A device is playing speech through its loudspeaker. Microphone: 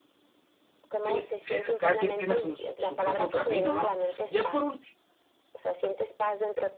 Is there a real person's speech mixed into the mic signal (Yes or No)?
Yes